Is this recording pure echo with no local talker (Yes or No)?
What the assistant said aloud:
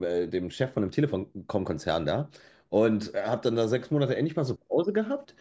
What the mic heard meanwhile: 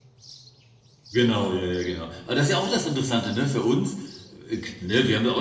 No